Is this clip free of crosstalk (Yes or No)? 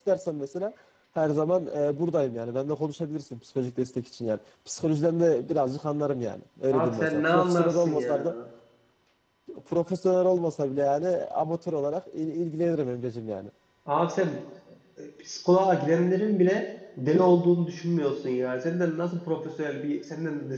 No